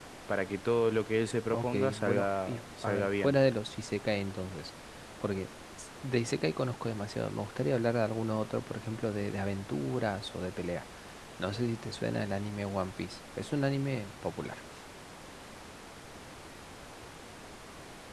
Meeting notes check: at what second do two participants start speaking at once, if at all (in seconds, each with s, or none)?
1.5 s